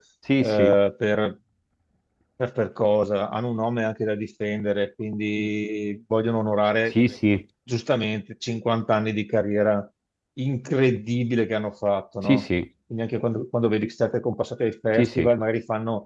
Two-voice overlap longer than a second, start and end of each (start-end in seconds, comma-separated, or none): none